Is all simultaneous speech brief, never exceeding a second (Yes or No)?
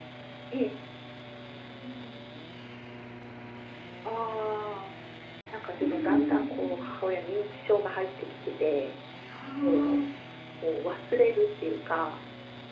No